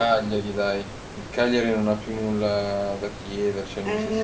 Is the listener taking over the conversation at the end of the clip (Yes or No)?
Yes